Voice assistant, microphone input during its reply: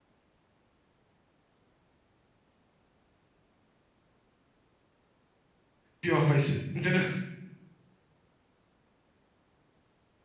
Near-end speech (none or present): present